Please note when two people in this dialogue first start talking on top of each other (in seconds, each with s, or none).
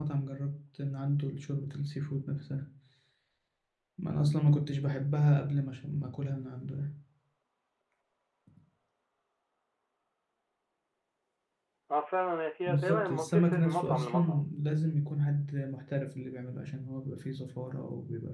12.7 s